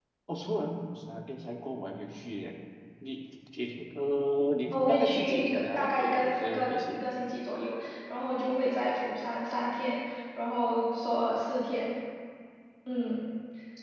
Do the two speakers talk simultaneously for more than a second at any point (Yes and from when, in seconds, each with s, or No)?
Yes, from 4.7 s